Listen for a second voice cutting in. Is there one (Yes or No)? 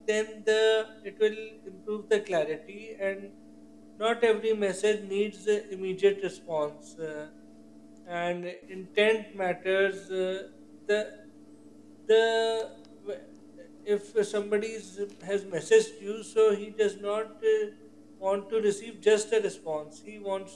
No